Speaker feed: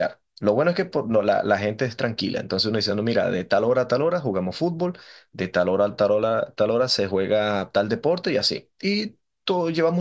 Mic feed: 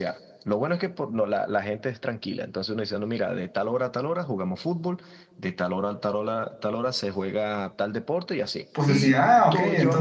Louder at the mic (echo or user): user